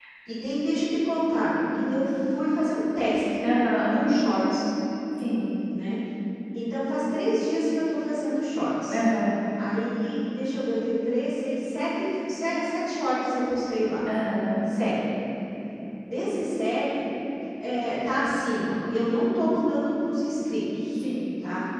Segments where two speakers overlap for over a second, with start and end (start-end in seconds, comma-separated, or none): none